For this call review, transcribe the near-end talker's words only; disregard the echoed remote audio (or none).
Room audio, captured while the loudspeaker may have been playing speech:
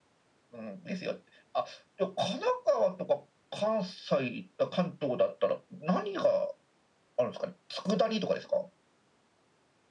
none